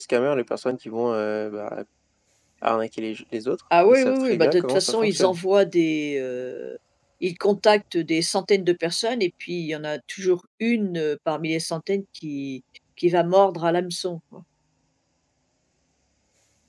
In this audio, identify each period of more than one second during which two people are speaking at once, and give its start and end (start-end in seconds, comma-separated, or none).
3.9-5.4